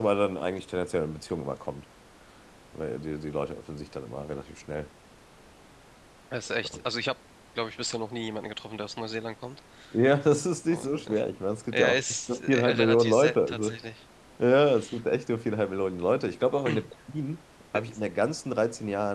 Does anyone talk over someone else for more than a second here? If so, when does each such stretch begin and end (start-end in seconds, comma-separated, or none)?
11.7-13.7